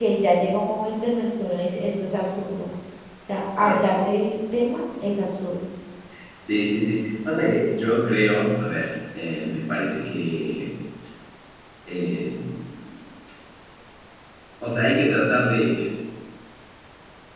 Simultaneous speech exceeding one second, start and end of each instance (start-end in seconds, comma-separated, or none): none